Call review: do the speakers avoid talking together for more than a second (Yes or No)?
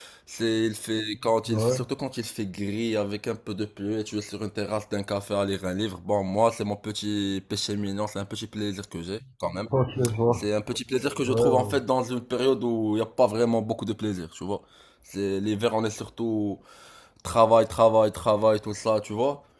Yes